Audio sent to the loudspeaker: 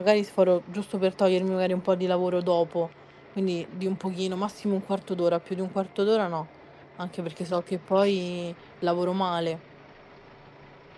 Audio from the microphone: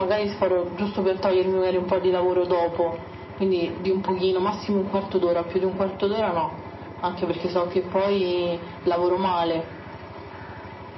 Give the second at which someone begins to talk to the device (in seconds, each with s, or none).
none